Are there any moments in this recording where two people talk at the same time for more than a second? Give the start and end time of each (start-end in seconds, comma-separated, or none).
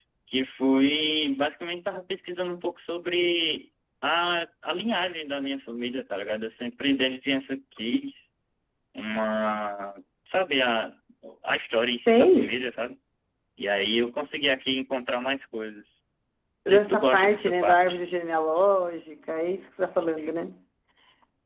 16.7-18.0